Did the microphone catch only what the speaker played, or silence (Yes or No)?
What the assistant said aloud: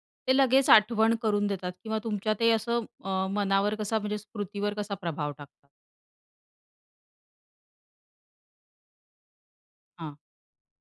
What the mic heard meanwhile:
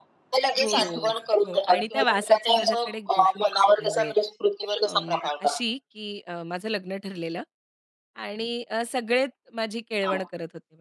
No